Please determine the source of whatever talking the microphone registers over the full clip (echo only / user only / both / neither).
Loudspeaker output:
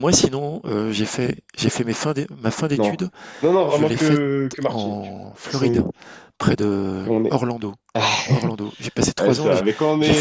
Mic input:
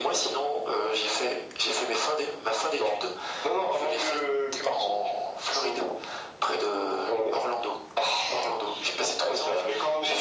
echo only